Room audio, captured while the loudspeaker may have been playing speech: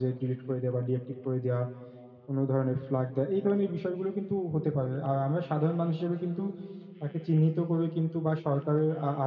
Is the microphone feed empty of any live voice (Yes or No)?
Yes